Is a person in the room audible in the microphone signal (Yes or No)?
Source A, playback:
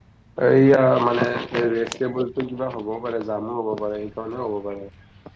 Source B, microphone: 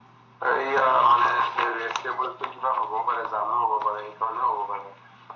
No